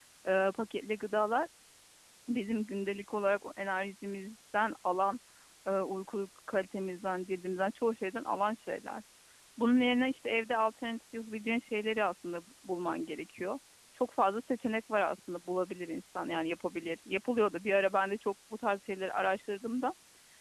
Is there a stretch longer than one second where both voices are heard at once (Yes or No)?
No